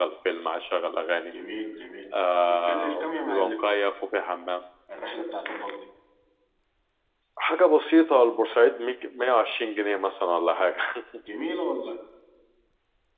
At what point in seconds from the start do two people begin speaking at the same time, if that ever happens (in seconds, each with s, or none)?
2.4 s